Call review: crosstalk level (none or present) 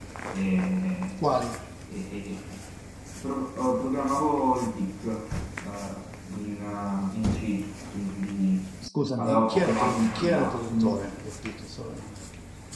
present